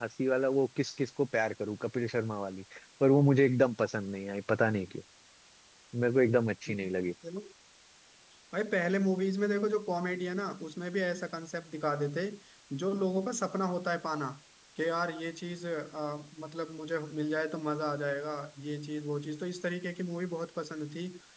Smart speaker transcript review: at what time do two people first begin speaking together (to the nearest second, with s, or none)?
none